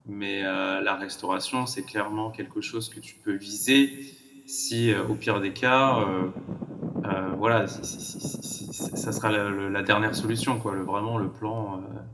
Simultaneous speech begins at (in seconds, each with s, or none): none